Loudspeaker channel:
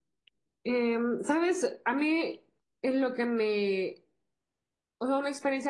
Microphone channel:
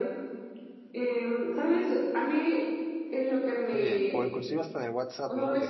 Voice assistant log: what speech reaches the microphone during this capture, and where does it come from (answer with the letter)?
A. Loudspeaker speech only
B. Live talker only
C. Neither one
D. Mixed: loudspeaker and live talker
D